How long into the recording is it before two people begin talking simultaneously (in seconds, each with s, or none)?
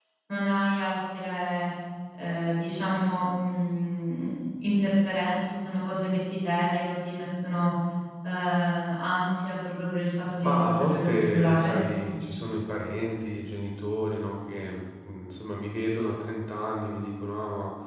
10.4 s